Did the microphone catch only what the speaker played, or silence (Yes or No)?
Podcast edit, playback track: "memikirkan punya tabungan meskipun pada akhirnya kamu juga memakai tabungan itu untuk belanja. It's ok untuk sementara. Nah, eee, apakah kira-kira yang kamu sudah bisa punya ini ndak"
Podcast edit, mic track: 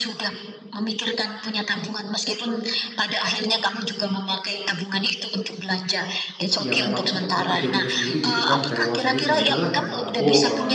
No